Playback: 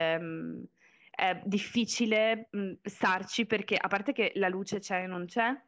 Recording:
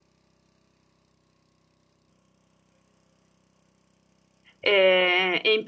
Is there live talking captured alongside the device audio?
Yes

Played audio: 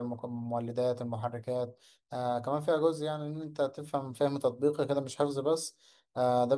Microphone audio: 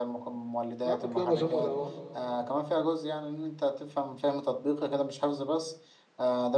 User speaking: Yes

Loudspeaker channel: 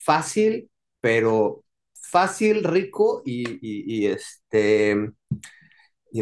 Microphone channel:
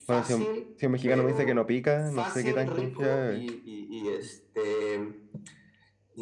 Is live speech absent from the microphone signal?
No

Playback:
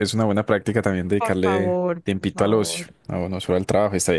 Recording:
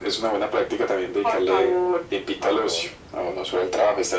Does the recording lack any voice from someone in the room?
Yes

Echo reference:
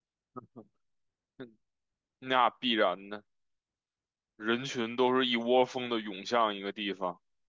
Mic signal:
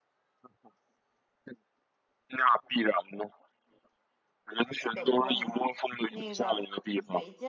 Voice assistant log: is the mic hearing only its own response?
No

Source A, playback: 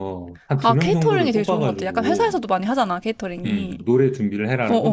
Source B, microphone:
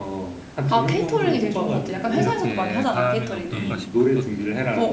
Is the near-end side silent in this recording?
No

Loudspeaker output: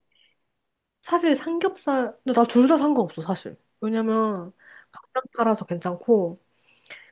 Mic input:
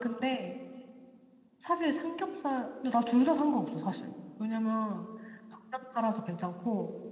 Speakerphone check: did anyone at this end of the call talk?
No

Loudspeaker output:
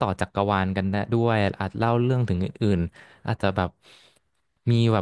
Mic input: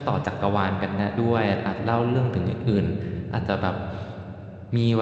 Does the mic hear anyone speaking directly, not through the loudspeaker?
No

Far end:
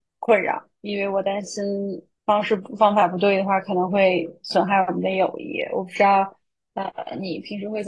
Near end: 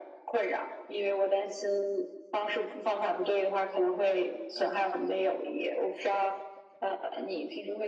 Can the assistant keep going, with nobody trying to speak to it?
Yes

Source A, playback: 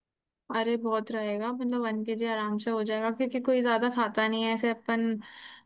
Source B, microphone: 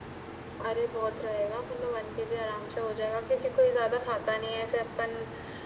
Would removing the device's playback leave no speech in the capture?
Yes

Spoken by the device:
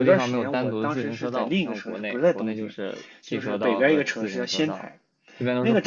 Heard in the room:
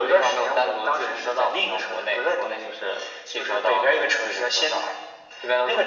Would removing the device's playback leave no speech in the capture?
Yes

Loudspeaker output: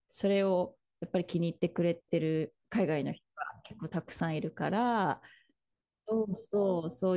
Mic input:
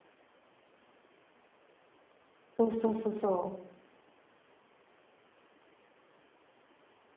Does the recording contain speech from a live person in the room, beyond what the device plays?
Yes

